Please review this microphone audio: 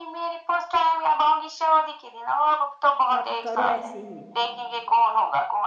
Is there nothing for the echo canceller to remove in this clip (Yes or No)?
No